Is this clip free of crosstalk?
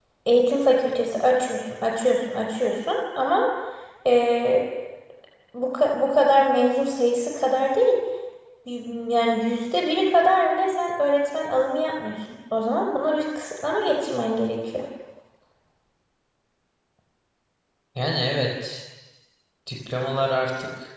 Yes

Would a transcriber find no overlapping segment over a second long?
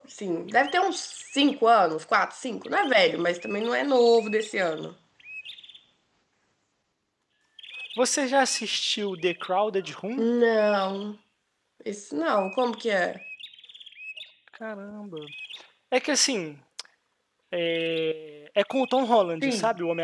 Yes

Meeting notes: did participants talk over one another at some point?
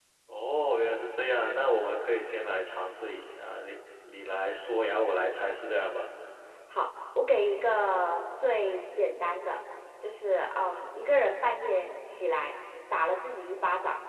No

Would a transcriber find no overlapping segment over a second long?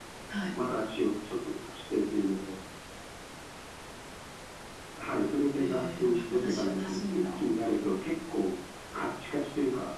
No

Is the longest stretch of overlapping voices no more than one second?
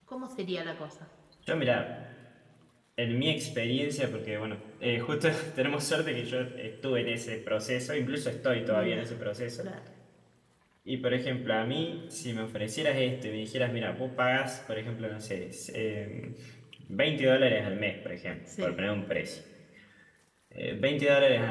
Yes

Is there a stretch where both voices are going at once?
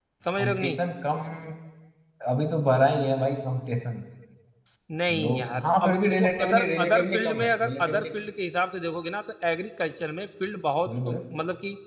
Yes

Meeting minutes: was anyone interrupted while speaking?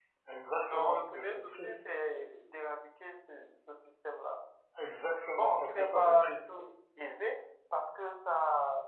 Yes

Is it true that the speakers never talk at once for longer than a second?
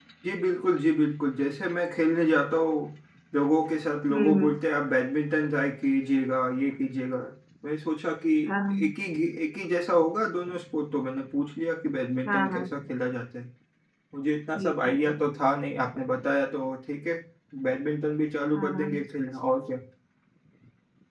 Yes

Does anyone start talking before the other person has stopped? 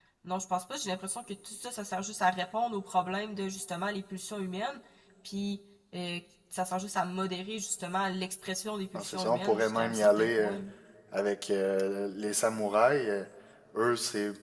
Yes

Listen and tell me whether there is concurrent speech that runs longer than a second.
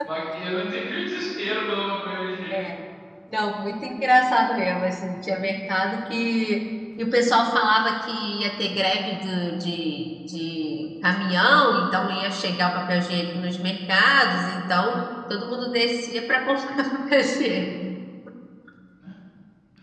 No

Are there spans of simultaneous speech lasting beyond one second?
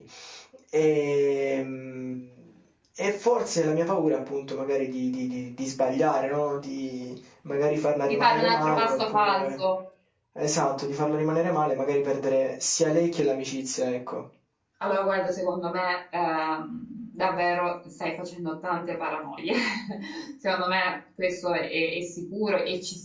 Yes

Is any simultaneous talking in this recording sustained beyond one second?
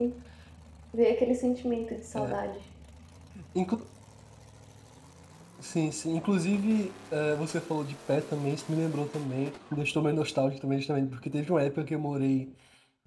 No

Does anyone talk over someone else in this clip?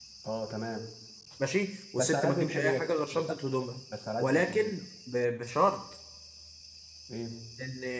Yes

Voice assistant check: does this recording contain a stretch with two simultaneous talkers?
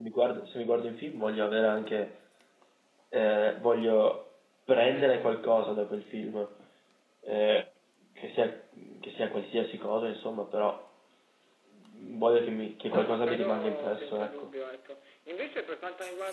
Yes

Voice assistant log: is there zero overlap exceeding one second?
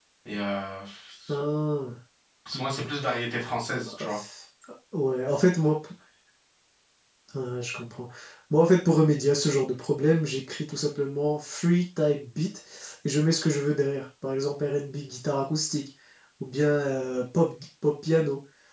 Yes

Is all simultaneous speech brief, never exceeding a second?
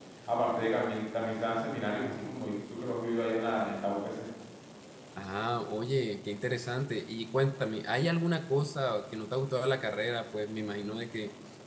Yes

